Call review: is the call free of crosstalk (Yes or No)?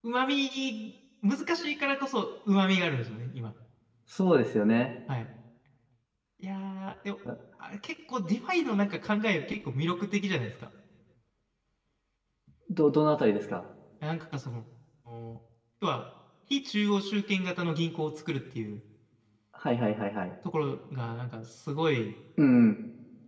Yes